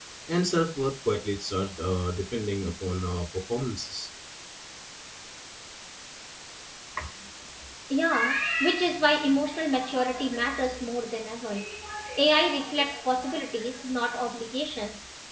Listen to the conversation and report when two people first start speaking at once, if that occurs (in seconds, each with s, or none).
none